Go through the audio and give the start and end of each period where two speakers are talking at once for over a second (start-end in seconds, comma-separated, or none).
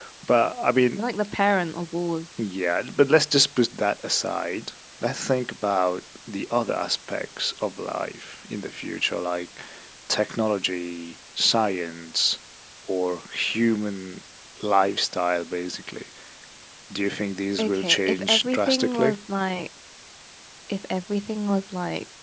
17.6-19.1